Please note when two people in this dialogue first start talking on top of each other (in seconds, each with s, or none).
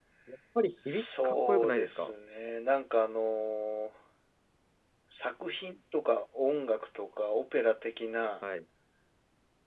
0.8 s